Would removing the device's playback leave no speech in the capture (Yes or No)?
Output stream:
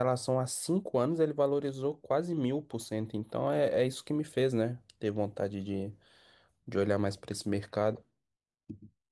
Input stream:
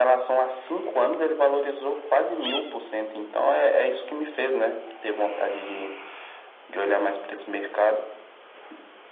Yes